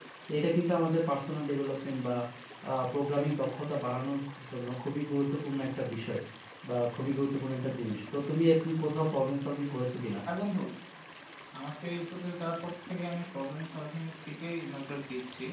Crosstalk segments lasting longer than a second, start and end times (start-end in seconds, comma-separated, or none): none